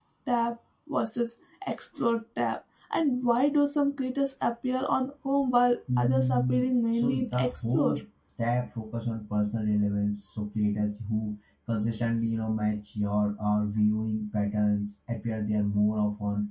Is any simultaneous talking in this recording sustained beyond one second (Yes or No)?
Yes